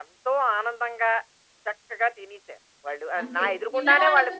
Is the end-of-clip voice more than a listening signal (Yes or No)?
Yes